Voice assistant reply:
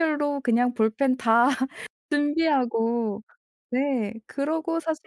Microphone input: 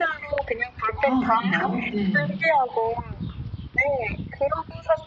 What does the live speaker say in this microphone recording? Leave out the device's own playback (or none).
아 그런가요? 네.